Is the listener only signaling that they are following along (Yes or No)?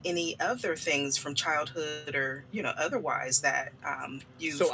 No